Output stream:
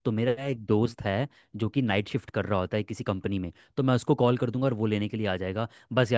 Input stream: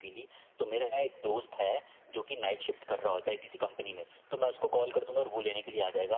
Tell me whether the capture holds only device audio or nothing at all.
Yes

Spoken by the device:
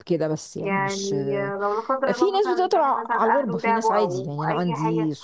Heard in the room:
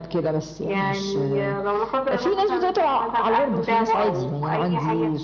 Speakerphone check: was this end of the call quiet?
Yes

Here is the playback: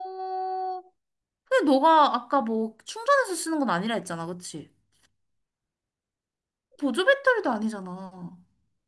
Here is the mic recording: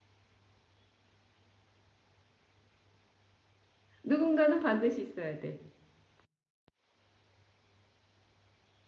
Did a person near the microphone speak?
Yes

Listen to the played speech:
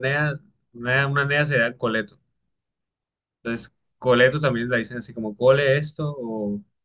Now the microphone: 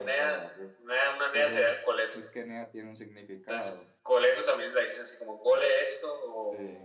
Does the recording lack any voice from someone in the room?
No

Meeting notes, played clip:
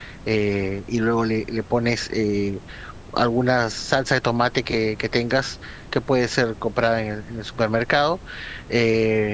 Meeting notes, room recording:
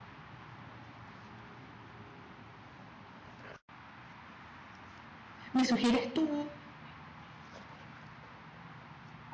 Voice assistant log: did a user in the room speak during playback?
Yes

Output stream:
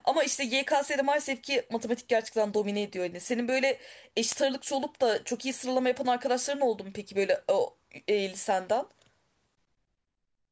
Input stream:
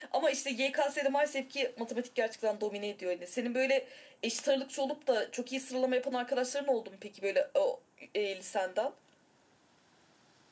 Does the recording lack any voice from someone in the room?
Yes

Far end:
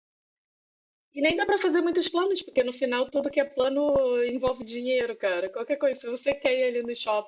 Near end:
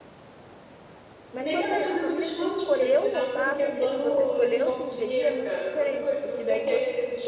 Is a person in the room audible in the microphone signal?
Yes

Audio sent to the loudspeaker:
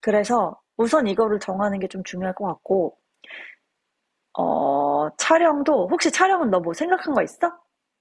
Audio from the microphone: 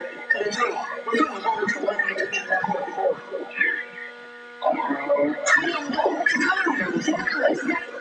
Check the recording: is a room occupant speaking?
No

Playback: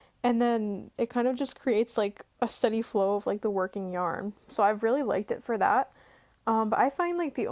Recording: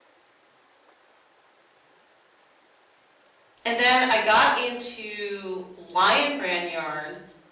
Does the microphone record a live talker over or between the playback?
Yes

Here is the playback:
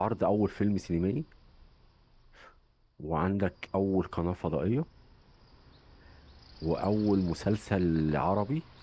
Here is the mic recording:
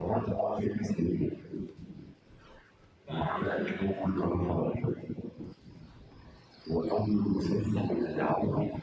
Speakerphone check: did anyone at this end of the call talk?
Yes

